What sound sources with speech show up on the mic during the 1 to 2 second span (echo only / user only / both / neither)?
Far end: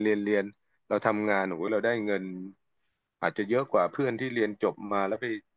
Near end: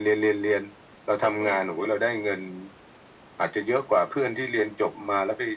both